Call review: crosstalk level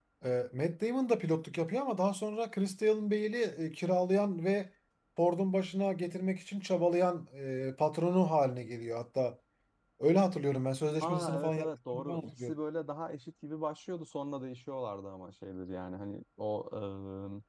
present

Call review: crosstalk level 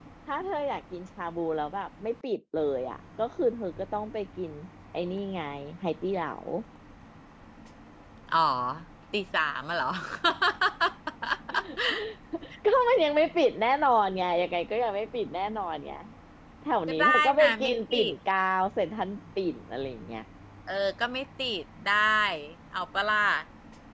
present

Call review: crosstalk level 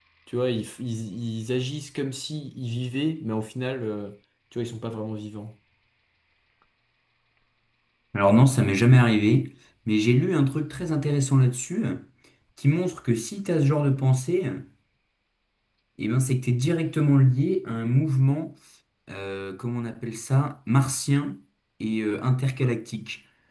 none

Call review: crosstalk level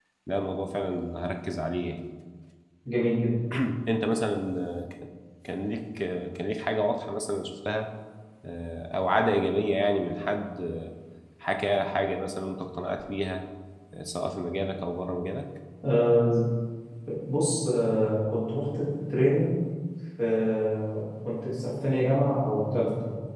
none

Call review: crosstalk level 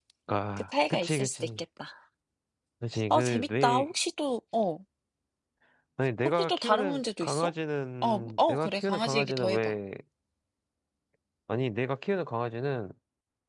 present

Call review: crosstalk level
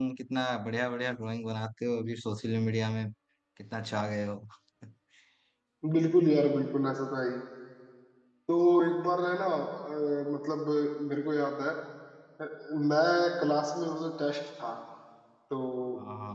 none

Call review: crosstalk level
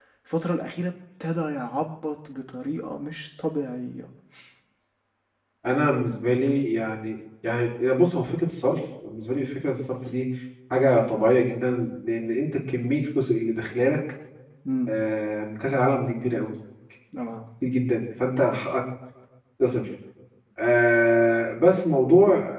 none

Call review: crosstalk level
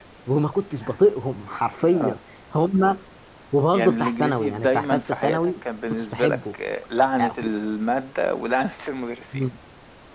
present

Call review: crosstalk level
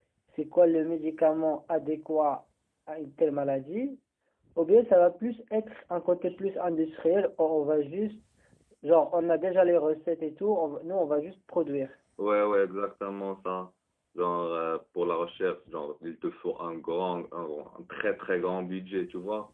none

